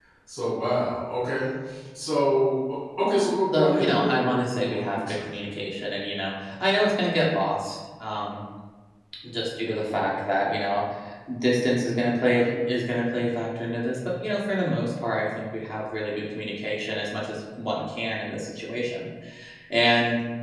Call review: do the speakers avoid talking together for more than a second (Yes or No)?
No